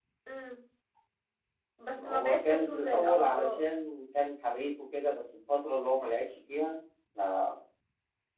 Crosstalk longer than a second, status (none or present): present